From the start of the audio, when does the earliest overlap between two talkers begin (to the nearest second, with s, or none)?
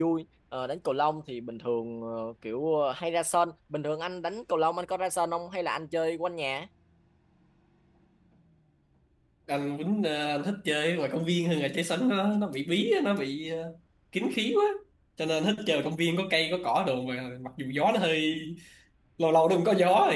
none